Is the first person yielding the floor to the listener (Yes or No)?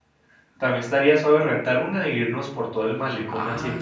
Yes